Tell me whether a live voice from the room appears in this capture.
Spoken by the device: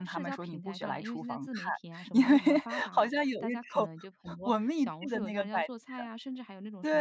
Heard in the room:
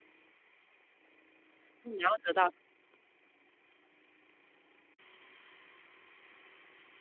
Yes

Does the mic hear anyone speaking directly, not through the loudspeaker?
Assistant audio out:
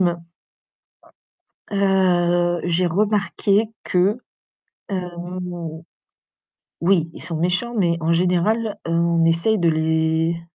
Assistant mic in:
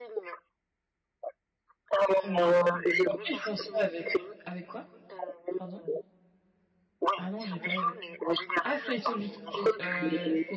Yes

